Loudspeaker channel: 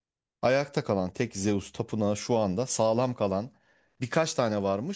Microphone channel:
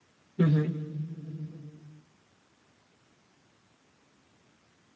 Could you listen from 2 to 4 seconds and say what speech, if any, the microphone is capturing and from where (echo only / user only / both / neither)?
neither